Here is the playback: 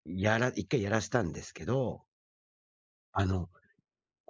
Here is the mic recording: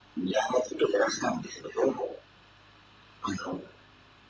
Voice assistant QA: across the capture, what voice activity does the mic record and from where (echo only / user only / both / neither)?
echo only